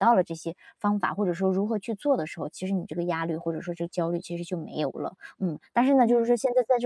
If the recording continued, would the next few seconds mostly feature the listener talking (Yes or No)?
No